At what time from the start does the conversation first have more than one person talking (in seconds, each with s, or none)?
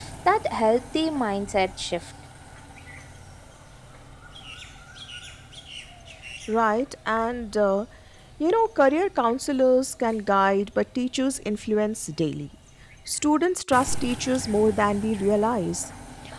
none